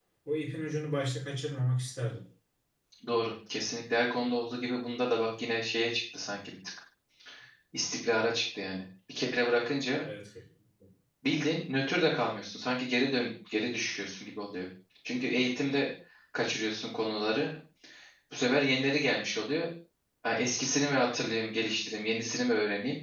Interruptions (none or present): none